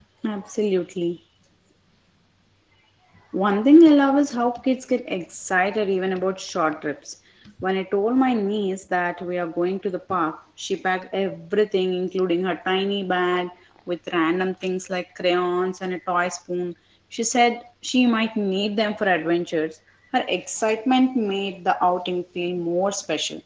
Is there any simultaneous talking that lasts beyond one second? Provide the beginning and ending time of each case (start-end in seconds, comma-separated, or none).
none